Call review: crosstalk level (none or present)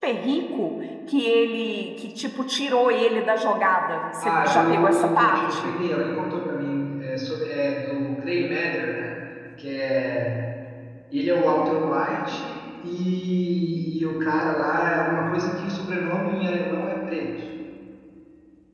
present